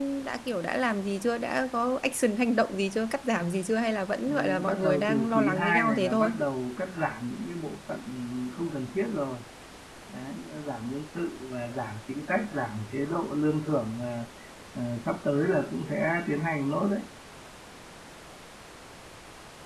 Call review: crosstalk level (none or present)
present